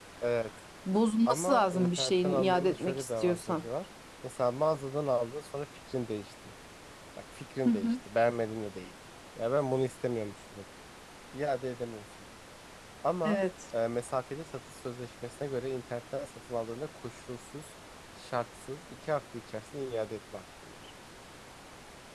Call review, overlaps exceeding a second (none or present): present